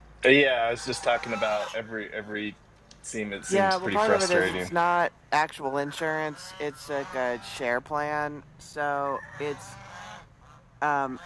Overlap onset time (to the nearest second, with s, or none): 3 s